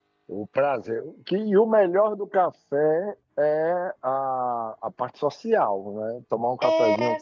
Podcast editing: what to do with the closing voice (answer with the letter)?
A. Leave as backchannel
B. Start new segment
B